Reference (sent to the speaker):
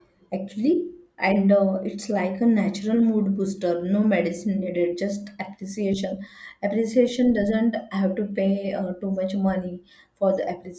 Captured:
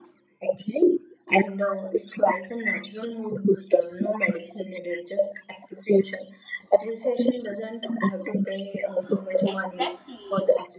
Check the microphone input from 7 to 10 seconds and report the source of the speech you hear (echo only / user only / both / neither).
both